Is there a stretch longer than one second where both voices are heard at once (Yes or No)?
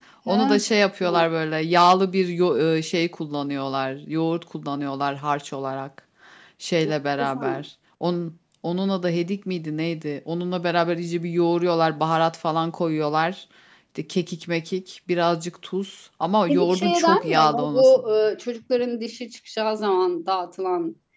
Yes